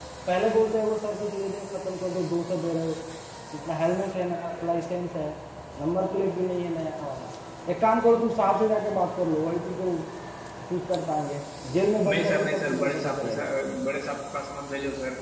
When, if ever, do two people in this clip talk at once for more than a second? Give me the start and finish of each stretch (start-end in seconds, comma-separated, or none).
12.1-13.5